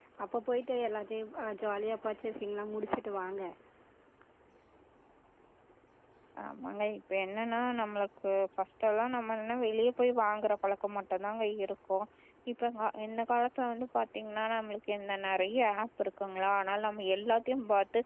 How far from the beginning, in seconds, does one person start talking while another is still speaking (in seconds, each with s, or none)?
none